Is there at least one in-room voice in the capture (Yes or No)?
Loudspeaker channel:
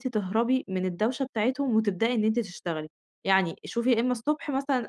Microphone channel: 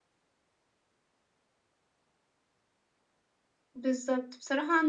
Yes